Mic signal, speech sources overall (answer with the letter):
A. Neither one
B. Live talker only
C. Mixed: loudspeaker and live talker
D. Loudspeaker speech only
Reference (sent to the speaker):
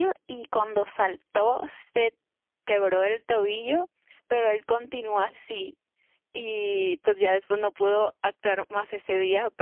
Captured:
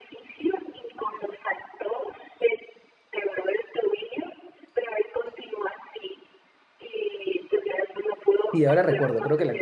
C